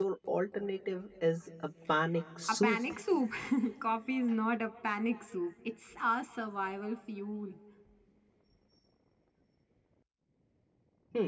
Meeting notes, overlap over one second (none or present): none